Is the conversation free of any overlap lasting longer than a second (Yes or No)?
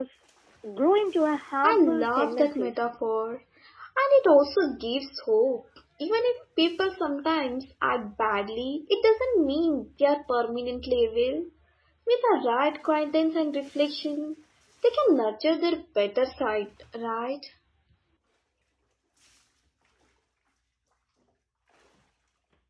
No